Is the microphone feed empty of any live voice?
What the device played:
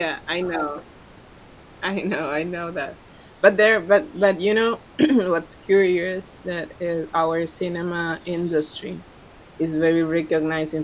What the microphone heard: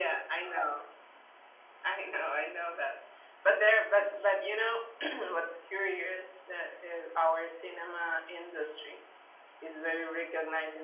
Yes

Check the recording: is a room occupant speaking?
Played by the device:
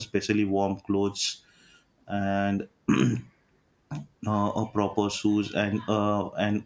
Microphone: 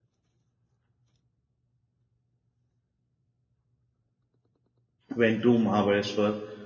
Yes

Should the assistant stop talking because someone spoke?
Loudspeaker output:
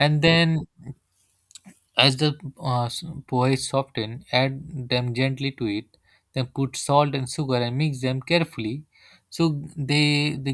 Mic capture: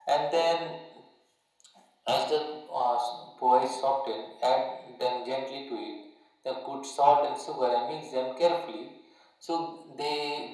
No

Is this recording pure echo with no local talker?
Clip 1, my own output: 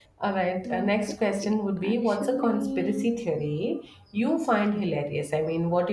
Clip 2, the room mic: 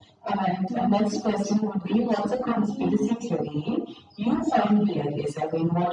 Yes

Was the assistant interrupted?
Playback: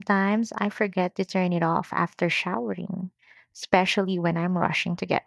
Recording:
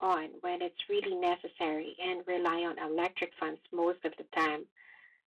Yes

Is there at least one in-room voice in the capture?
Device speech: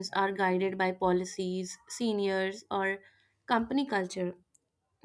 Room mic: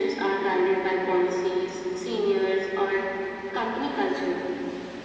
No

